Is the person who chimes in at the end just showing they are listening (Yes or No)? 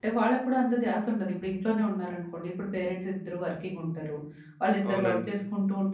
Yes